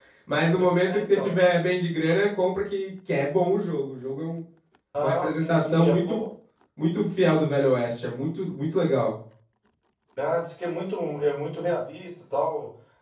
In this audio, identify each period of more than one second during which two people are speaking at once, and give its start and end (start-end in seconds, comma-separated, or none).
5.0-6.2